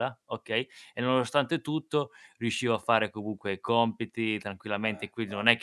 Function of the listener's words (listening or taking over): listening